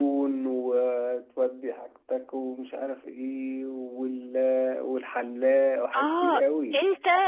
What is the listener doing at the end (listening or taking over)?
taking over